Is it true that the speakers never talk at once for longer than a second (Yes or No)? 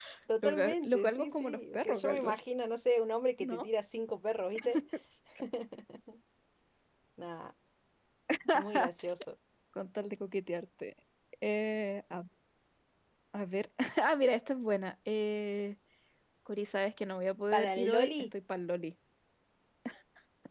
No